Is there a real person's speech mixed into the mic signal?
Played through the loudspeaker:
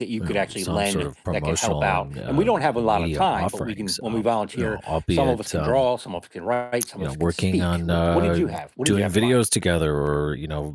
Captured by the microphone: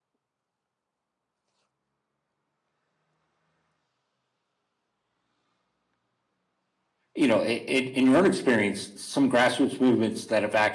Yes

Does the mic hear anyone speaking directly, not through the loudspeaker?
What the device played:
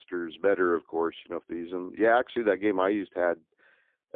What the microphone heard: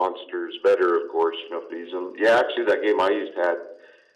No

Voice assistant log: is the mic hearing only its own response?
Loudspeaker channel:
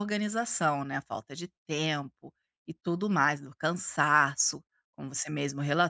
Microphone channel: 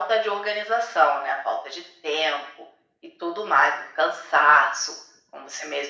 Yes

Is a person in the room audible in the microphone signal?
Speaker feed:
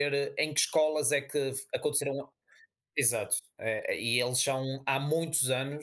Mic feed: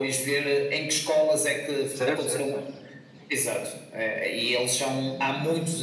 Yes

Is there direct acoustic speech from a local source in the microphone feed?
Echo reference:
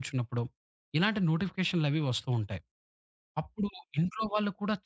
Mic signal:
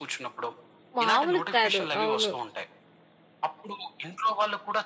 Yes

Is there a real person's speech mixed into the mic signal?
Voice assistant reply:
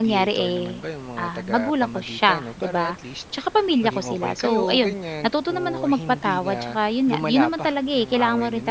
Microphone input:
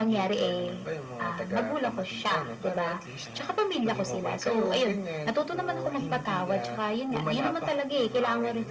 Yes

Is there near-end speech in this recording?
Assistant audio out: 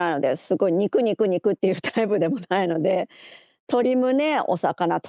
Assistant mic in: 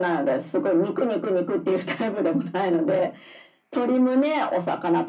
No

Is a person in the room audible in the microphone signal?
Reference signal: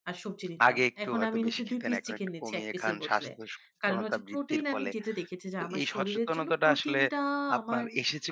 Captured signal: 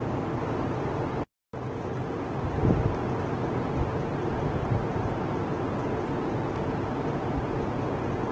No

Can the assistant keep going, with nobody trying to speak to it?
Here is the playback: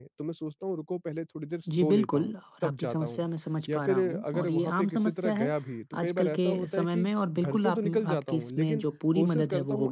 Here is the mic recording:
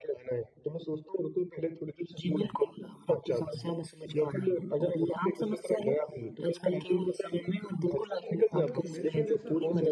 No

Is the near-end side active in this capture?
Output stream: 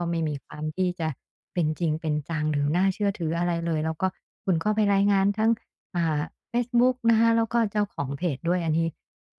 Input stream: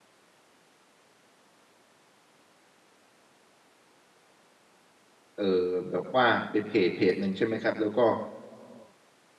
Yes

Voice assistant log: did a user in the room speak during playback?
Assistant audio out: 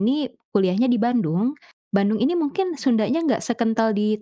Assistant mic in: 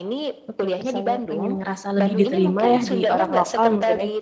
Yes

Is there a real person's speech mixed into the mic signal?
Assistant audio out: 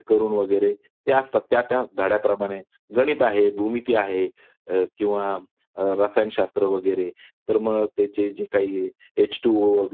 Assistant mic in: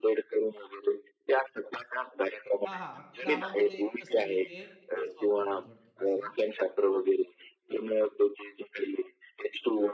Yes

